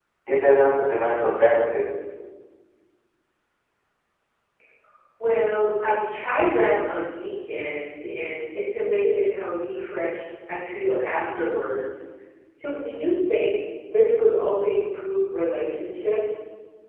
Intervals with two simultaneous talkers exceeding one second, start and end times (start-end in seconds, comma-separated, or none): none